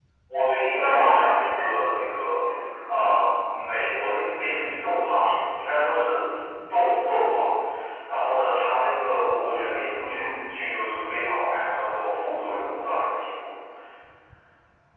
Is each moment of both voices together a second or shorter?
No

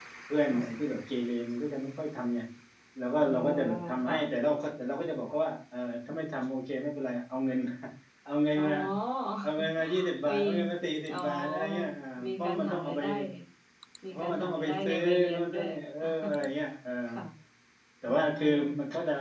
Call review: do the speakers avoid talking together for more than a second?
No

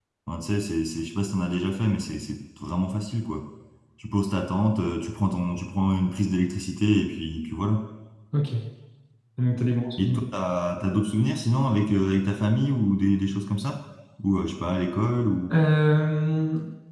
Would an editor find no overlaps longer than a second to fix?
Yes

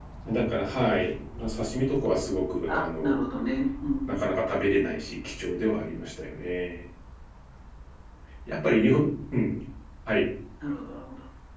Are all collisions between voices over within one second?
Yes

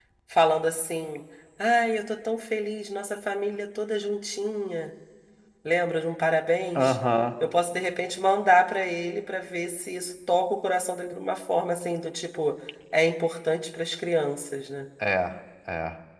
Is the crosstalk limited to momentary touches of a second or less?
Yes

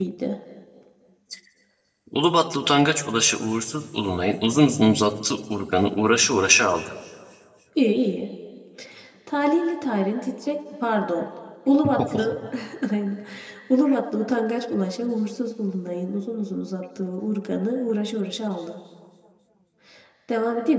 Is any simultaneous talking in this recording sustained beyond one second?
No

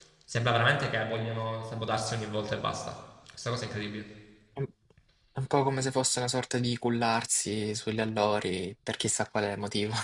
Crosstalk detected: No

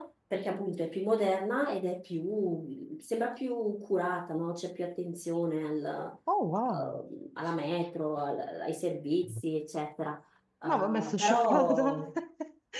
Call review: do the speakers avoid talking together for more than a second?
No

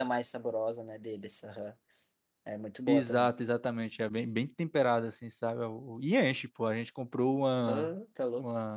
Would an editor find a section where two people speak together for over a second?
No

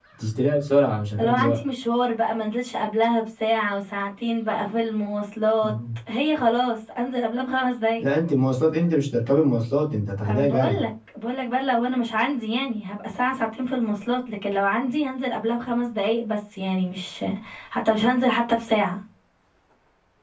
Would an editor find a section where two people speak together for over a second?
No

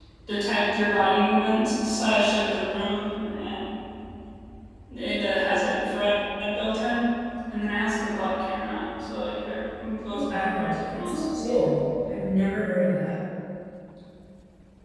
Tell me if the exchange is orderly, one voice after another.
No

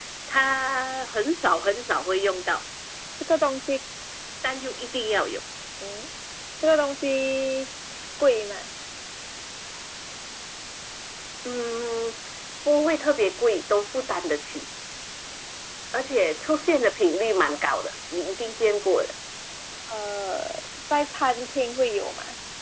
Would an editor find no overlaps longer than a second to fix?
Yes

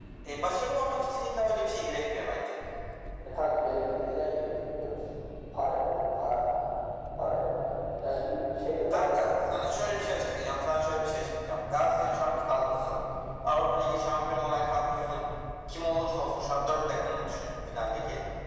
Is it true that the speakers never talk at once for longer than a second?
Yes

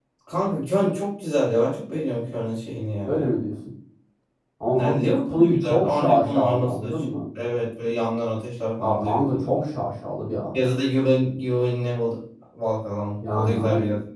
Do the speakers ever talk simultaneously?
Yes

